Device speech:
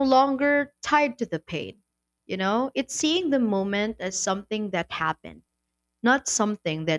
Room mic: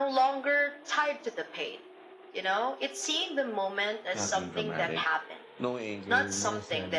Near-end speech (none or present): present